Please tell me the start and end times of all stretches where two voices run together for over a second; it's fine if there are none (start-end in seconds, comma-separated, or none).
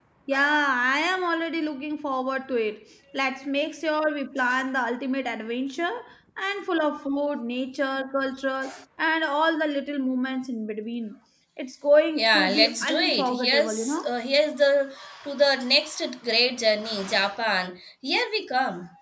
12.2-14.1